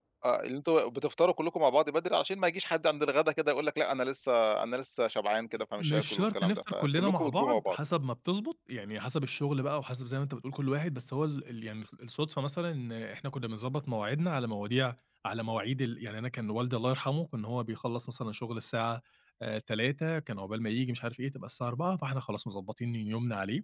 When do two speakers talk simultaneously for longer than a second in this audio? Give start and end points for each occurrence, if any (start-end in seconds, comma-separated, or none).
5.8-7.8